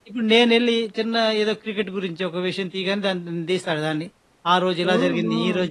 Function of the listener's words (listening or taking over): listening